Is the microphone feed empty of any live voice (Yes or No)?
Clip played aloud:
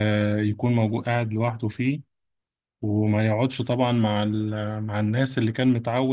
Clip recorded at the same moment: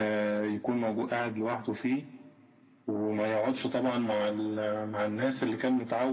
Yes